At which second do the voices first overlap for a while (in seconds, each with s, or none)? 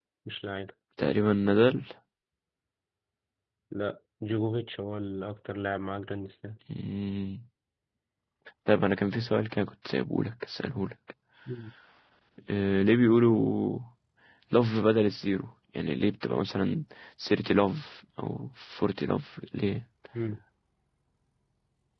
none